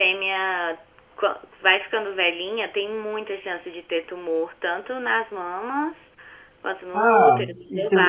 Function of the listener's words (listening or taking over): taking over